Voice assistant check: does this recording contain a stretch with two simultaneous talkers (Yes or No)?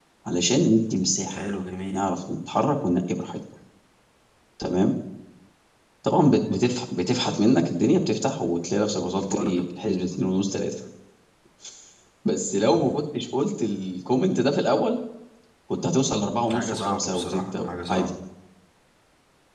Yes